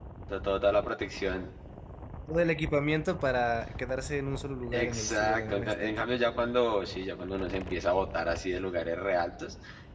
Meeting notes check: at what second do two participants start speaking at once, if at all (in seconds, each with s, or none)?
4.7 s